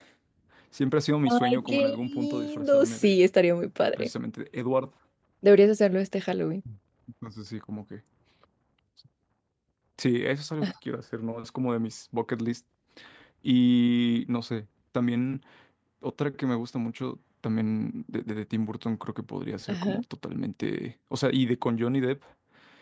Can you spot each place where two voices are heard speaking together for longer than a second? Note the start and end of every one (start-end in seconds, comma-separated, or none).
1.5-3.1